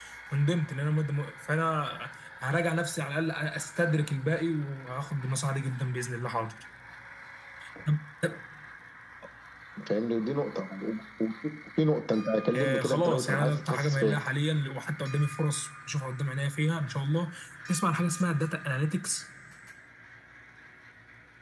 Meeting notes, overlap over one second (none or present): present